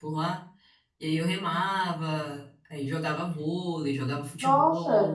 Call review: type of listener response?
taking over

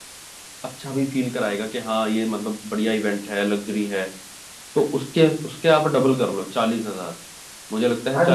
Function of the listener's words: taking over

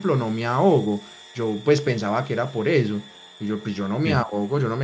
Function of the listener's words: listening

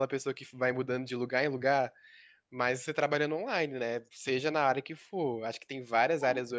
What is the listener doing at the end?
listening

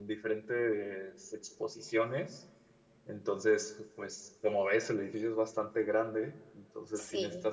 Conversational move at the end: listening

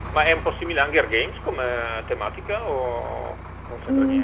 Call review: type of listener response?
taking over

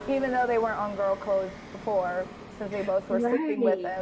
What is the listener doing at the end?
taking over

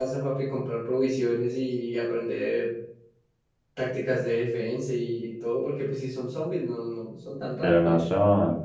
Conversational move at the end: taking over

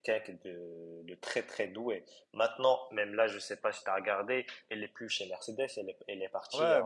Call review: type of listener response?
taking over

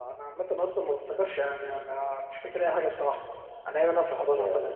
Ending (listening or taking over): listening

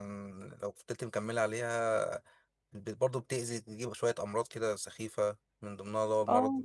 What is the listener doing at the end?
listening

